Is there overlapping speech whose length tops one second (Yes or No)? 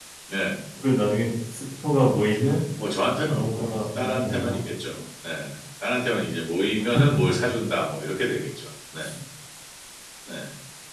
Yes